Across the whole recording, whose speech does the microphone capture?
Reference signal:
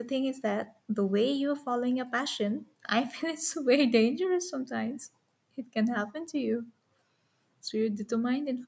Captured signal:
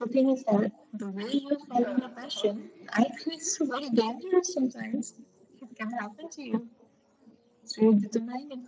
both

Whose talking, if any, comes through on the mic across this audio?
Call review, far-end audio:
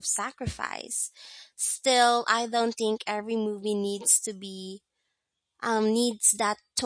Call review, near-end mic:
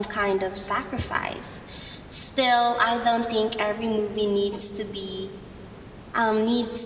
echo only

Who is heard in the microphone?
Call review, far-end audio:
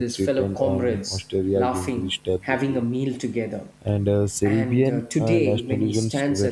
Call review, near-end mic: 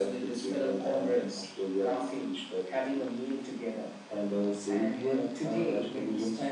echo only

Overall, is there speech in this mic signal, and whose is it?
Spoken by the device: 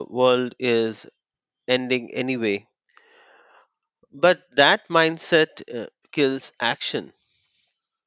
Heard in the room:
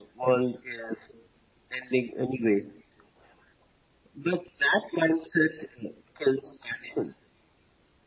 echo only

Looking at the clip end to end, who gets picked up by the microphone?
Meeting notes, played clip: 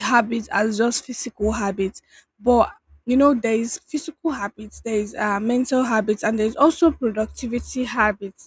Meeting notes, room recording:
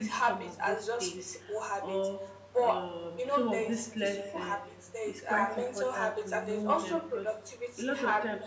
both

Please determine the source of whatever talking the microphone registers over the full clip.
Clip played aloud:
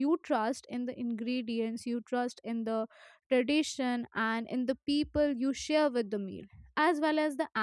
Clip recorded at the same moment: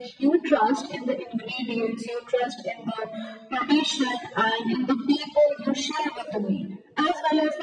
echo only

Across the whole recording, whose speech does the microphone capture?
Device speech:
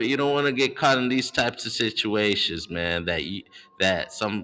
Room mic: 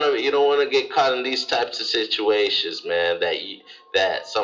echo only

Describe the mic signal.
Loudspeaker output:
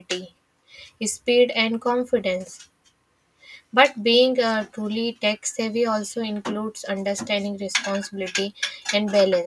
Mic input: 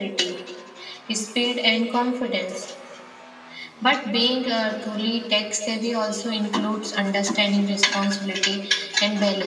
echo only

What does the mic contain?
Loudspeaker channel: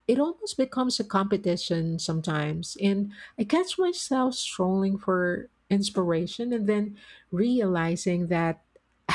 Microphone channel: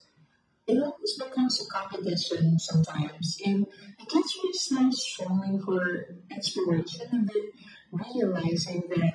echo only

